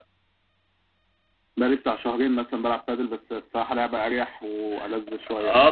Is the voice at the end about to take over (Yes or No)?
Yes